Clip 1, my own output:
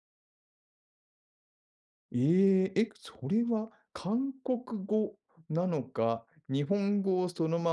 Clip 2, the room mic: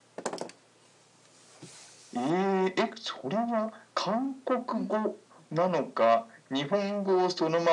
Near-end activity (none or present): present